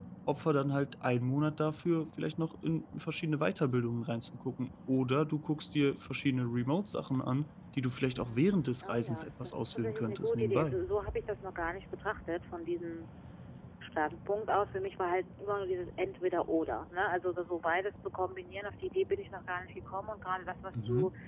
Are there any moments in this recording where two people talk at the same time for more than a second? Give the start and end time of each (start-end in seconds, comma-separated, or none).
8.2-10.8